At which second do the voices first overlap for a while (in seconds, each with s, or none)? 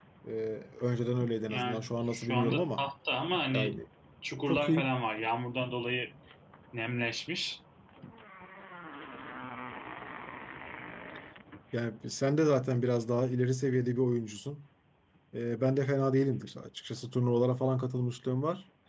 1.5 s